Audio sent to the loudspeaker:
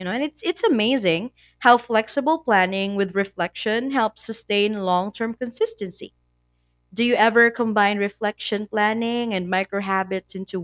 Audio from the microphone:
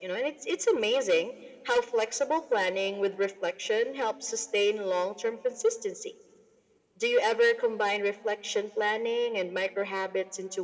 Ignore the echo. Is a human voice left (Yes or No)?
No